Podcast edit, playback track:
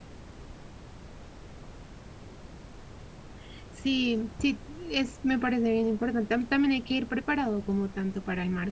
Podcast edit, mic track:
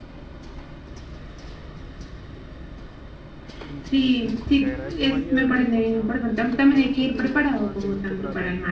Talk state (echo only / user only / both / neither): both